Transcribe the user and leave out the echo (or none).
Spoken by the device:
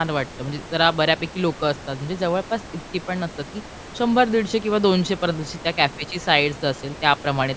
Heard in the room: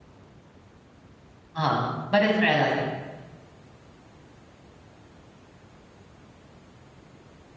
हां, बऱ्याच वेळेला असतं.